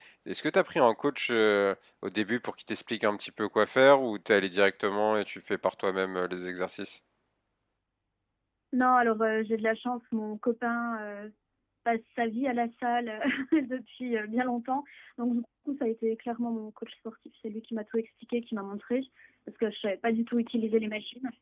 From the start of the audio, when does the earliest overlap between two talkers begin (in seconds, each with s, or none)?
none